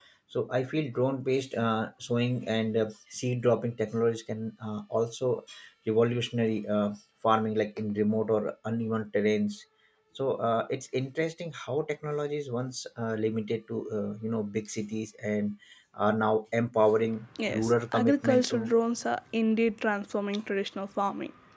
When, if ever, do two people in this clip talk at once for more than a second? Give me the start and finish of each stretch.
17.5-18.7

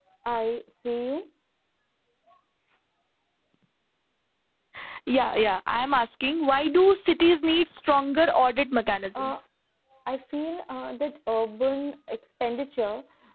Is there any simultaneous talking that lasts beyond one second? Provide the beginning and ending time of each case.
none

